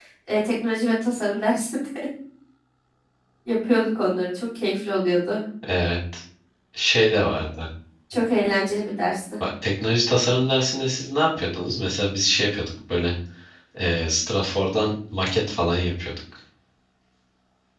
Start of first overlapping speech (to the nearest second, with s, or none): none